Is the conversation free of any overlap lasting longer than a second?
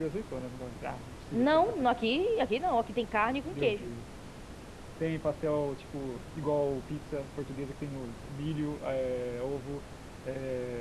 Yes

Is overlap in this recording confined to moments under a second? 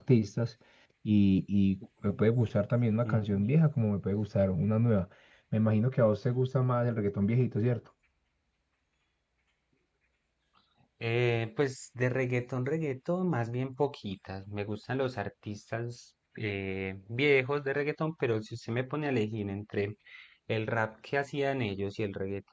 Yes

